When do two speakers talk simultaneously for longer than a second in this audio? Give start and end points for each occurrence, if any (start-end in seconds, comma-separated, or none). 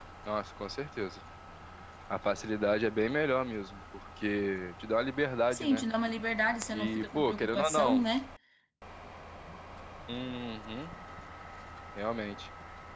6.7-8.0